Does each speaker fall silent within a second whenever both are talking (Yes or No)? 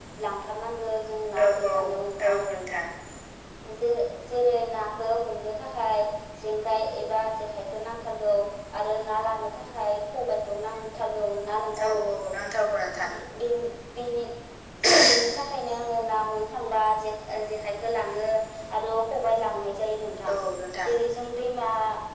Yes